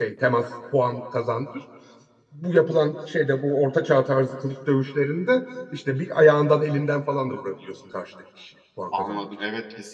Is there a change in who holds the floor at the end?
Yes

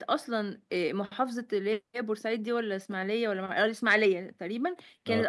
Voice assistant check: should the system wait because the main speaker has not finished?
Yes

